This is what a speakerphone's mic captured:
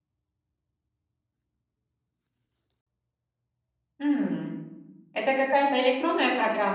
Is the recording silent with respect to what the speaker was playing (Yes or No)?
Yes